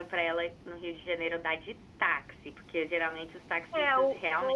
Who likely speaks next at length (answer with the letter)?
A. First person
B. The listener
B